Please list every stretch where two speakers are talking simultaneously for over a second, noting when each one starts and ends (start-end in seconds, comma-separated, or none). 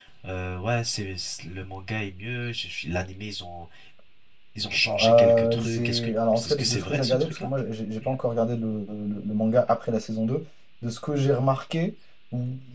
5.0-7.5